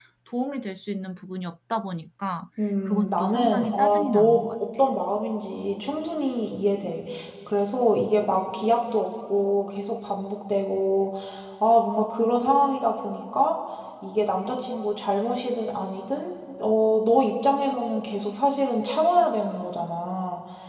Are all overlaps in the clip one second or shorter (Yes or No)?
No